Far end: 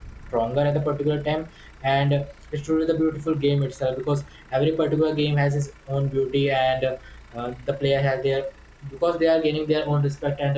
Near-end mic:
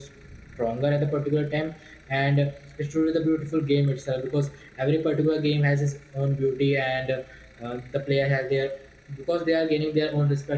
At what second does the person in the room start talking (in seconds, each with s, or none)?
none